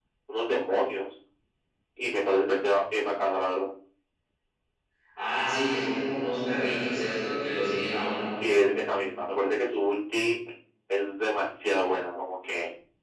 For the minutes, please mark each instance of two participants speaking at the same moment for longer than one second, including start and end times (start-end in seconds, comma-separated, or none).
none